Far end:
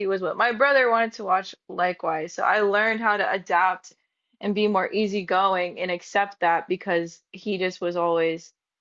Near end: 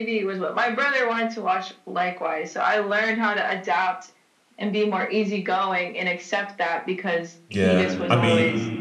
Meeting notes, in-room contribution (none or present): present